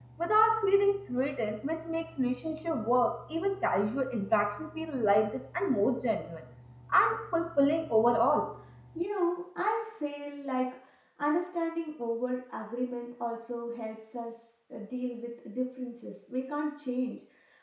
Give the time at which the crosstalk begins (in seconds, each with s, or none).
none